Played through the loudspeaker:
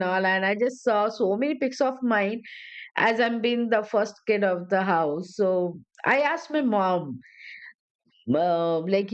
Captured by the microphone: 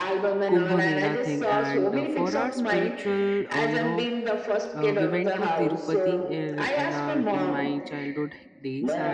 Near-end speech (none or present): present